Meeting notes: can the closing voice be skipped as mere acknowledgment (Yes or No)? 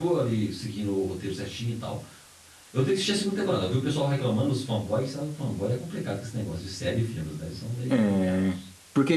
No